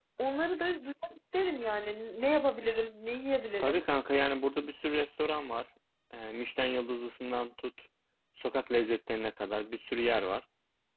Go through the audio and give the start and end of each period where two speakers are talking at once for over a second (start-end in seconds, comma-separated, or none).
none